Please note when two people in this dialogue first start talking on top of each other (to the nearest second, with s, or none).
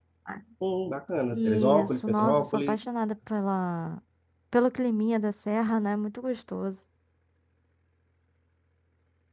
1 s